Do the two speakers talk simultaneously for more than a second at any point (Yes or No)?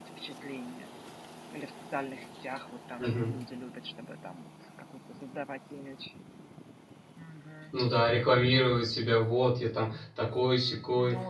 No